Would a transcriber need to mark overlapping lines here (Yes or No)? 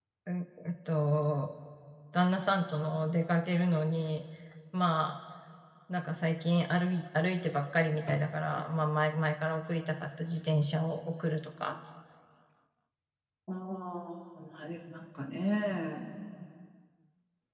No